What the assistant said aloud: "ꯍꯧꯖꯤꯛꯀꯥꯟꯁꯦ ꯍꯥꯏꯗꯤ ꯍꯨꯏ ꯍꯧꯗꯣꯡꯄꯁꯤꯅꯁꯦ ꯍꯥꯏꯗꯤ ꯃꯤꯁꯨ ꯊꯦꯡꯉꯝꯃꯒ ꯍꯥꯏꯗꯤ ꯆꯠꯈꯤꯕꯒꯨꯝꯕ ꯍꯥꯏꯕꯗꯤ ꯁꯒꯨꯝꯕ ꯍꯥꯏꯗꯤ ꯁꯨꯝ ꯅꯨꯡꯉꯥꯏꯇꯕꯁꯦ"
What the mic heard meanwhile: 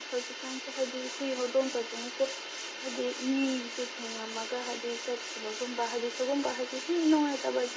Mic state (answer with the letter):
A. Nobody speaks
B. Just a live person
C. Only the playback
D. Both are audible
C